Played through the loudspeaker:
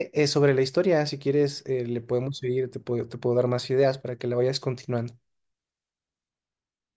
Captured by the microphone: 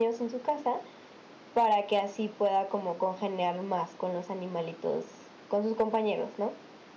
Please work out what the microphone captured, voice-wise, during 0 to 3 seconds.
user only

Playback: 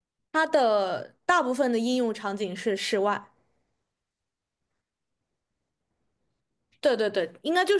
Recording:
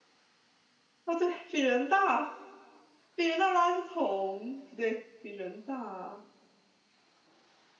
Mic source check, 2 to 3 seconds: user only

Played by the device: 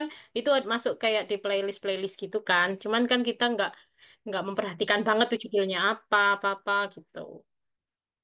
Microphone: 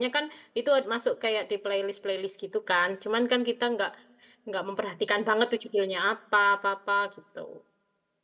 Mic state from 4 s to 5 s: echo only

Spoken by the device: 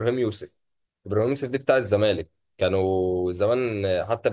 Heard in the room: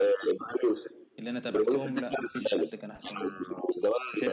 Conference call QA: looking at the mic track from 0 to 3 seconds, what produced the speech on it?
both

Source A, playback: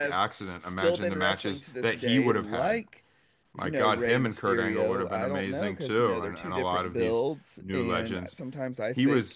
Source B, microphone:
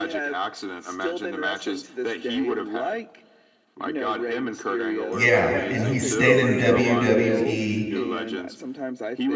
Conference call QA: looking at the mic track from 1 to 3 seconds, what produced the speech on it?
echo only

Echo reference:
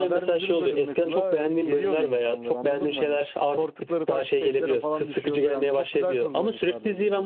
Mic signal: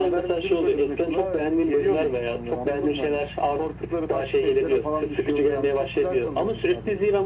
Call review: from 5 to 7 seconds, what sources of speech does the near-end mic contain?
echo only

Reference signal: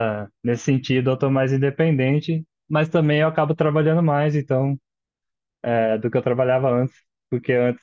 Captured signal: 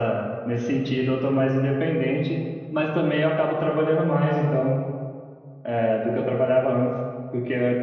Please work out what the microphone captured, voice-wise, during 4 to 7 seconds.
echo only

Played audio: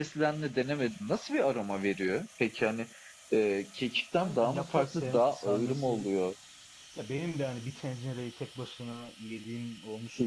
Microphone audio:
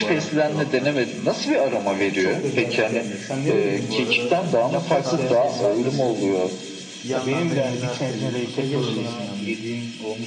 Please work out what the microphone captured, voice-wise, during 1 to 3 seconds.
both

